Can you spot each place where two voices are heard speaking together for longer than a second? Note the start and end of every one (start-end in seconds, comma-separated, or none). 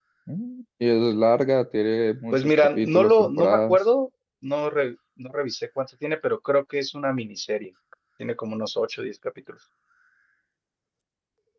2.3-3.8